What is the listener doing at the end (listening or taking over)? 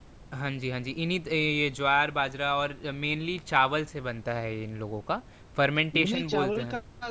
taking over